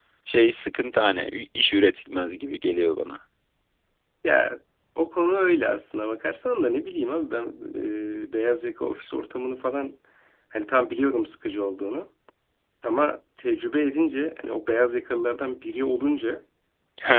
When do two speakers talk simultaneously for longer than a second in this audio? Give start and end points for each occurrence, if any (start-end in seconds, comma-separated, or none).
none